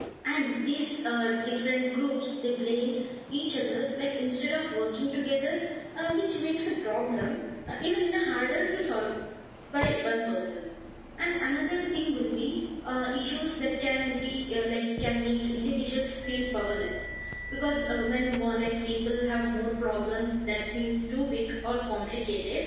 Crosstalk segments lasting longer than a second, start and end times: none

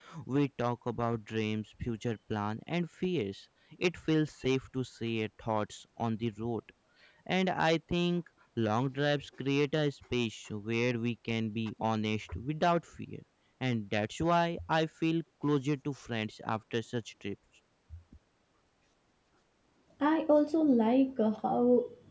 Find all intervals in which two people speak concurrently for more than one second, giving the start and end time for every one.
none

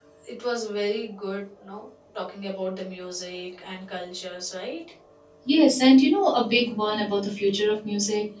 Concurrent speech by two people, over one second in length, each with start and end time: none

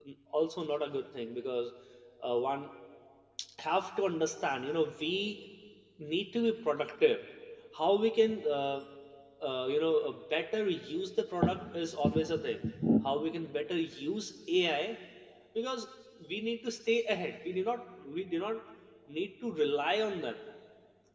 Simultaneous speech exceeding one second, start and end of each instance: none

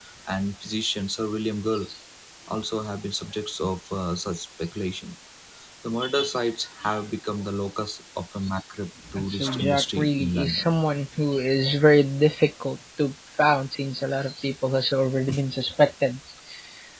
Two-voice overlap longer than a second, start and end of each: 9.3-10.7

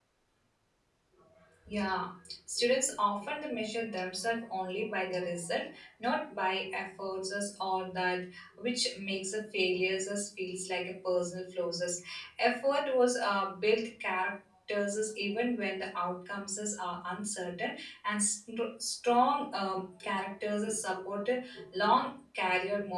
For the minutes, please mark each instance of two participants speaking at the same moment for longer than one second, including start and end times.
none

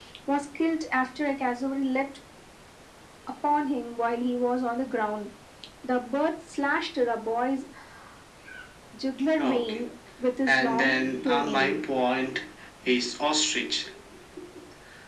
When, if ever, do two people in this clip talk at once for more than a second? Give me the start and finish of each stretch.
10.5-11.8

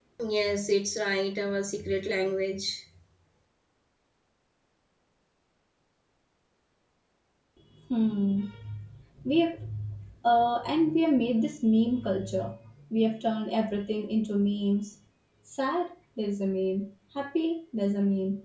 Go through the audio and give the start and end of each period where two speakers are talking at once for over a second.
none

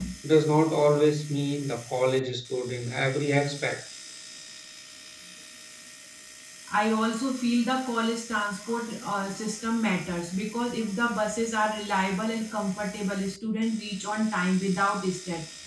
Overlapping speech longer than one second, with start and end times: none

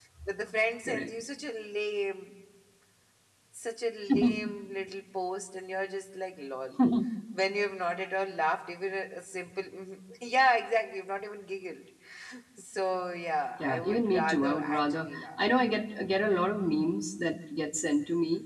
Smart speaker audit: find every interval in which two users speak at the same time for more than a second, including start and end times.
13.6-15.4

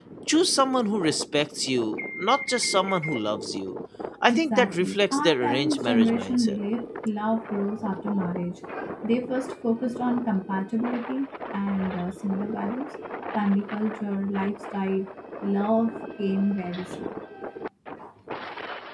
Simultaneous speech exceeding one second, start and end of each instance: 4.3-6.6

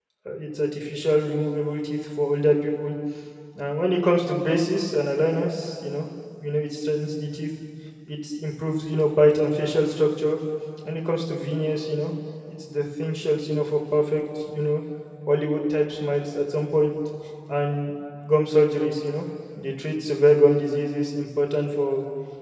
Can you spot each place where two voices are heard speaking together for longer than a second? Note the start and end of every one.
none

